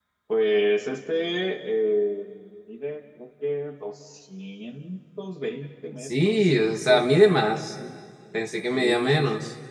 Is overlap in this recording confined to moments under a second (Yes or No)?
No